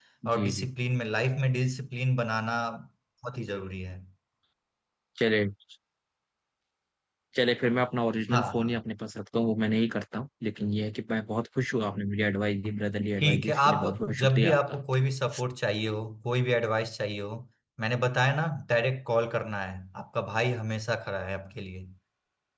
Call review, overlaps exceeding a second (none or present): present